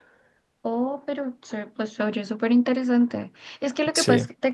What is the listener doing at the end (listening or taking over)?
listening